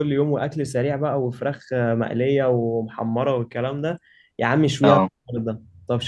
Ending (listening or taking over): listening